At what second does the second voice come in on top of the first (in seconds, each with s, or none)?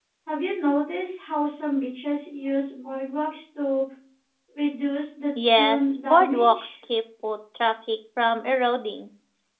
5.4 s